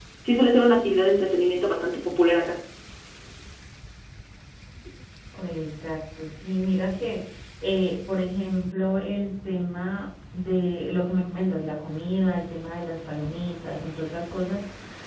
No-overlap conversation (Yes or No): Yes